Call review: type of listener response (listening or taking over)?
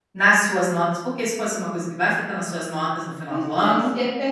taking over